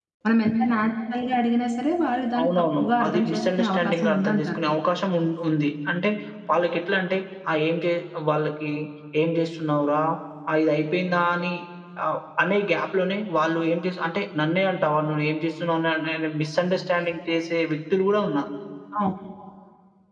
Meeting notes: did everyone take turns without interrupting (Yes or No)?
No